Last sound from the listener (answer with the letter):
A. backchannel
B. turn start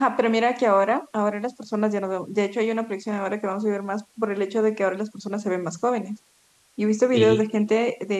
A